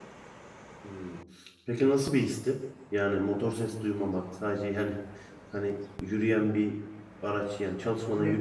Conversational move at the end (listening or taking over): taking over